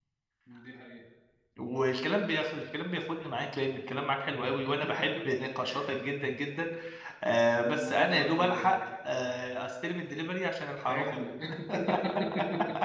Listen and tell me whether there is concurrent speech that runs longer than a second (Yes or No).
Yes